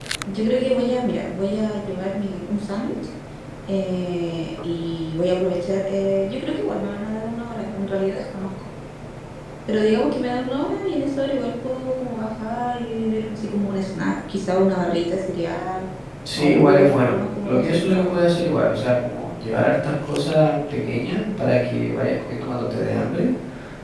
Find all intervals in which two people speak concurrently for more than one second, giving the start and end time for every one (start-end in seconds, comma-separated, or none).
16.4-18.1